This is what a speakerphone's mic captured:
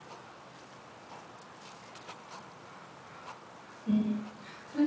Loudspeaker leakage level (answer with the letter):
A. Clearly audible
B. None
B